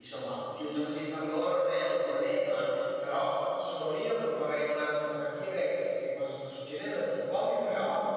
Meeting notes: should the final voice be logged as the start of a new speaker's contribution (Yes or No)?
No